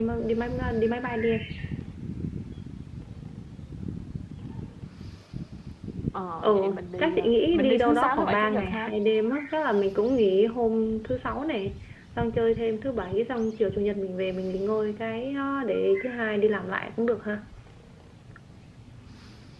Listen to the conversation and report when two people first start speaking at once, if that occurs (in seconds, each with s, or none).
6.4 s